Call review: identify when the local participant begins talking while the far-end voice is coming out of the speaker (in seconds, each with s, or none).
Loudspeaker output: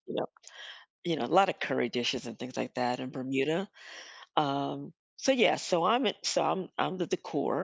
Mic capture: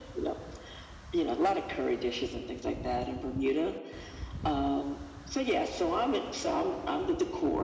none